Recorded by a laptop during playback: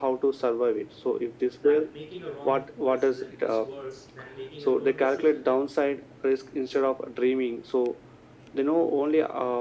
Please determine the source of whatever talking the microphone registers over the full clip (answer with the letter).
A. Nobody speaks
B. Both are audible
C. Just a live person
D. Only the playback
B